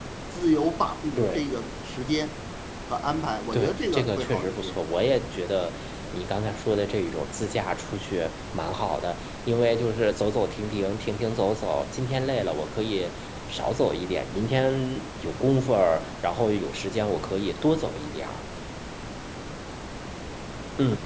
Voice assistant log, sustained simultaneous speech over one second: present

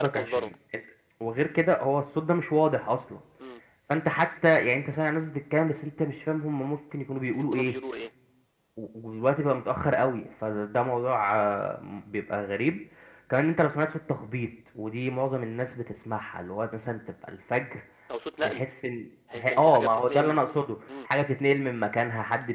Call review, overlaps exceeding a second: present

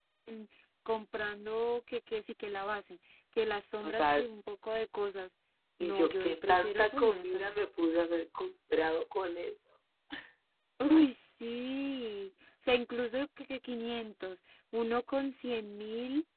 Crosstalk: present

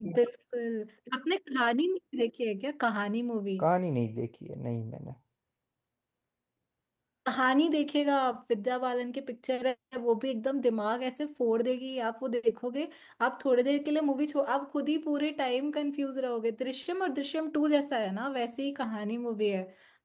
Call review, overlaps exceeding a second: none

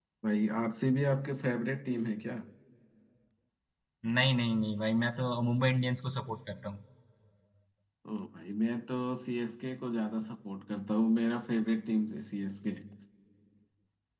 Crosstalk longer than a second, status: none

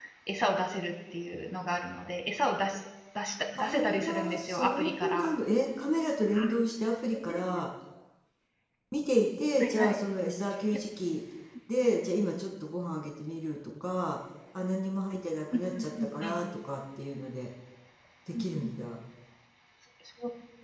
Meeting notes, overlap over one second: present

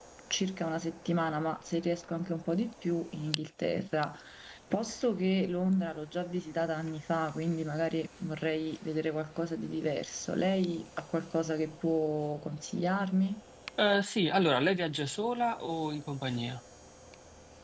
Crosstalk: none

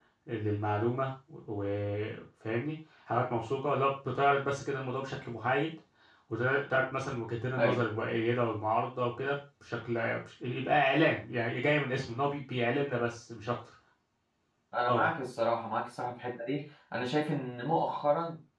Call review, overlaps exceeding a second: none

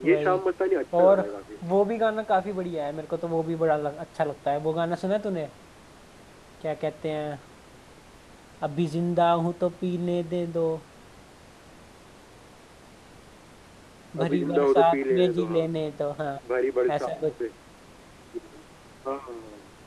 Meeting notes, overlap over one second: present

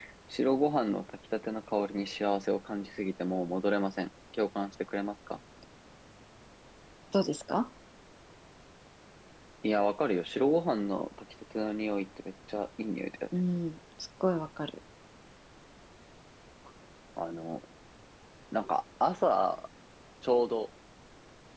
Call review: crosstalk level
none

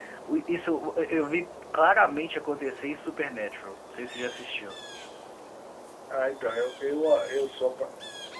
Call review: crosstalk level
none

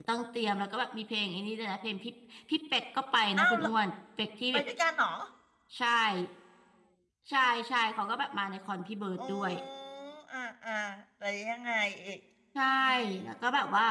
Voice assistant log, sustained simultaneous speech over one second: none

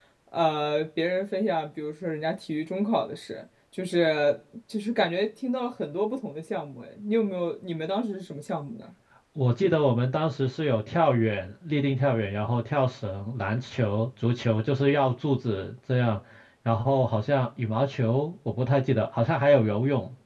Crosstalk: none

